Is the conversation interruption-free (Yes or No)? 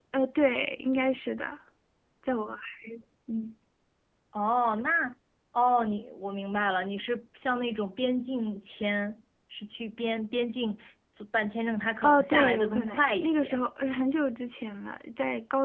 No